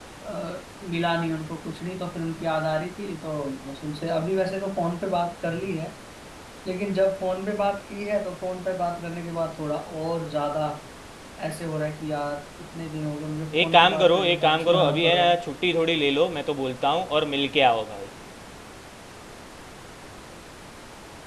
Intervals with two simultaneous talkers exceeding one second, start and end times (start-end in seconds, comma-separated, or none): 13.6-15.4